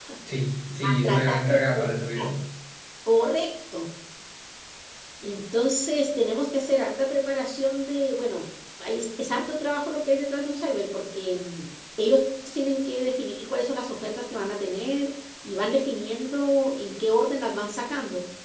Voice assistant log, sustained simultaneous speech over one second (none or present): present